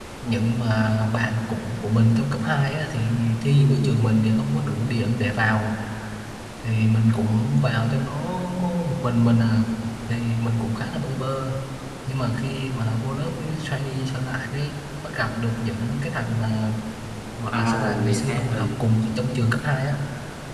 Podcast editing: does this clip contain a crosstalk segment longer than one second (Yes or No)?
Yes